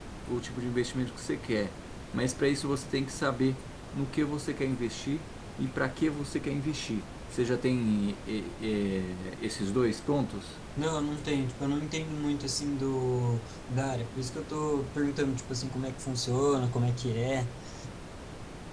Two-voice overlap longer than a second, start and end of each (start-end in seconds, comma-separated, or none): none